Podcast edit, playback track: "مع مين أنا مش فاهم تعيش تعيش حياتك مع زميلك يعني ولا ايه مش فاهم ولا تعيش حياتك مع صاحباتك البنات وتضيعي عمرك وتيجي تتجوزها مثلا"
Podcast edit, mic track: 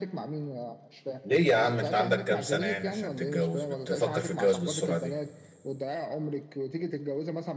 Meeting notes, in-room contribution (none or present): present